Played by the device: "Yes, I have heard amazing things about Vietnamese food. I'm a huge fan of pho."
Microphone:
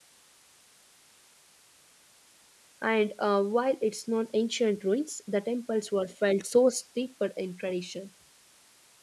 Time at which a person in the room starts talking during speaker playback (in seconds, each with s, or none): 2.8 s